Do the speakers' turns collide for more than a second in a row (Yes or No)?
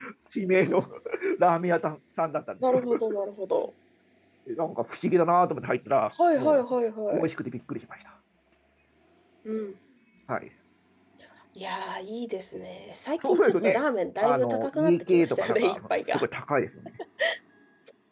Yes